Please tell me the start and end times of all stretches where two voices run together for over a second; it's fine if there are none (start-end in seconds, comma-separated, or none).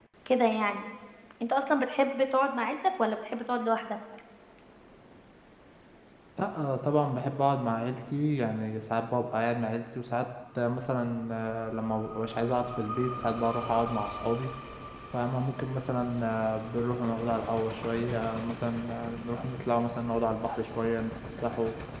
none